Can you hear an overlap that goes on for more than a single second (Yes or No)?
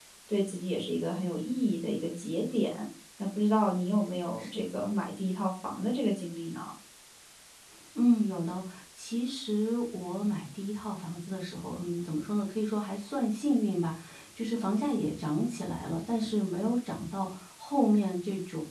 No